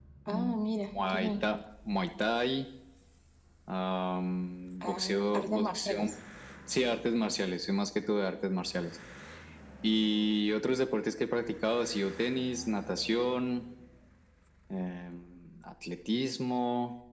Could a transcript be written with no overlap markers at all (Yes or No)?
No